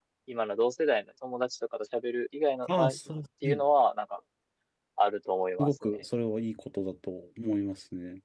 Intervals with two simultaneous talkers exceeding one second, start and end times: none

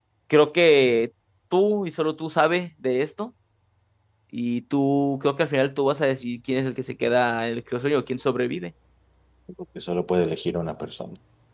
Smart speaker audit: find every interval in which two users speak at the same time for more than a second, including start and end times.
none

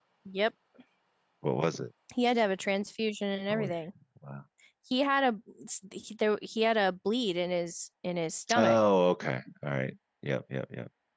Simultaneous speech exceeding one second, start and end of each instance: none

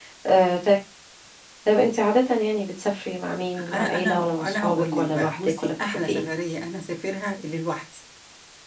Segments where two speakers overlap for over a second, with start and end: 3.7-6.2

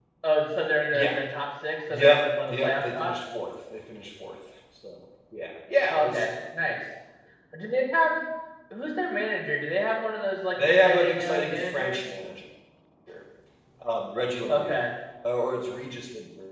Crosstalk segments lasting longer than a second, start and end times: 1.9-3.1, 10.6-12.0

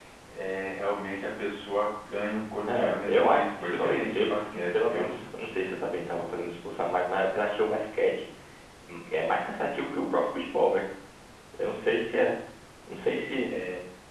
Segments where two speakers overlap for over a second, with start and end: 2.7-5.1

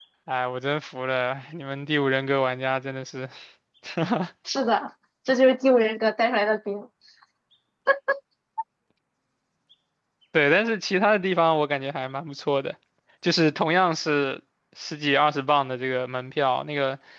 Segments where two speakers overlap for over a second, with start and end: none

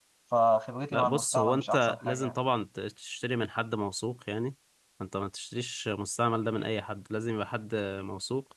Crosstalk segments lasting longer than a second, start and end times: 0.9-2.3

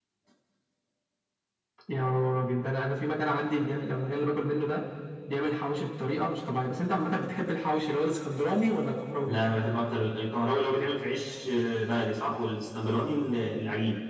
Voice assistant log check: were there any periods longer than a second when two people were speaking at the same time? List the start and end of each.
none

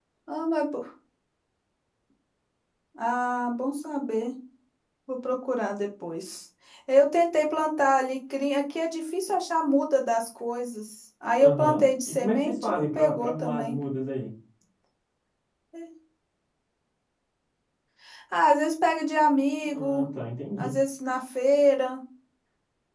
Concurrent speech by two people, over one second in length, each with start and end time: 11.4-13.8

